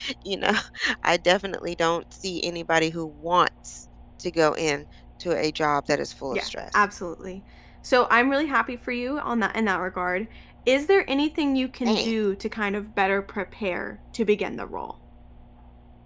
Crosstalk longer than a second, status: none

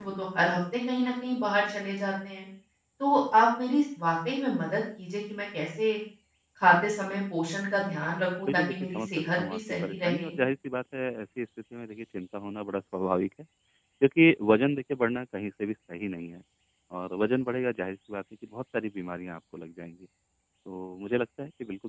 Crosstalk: present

